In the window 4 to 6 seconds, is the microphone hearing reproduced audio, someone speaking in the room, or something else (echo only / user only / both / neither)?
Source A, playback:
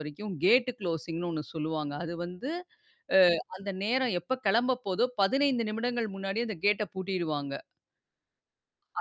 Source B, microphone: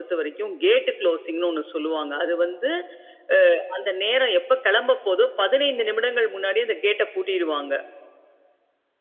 echo only